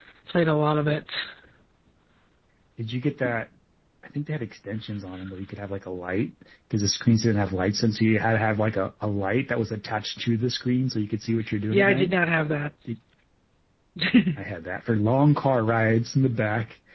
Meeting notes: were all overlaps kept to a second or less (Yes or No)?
Yes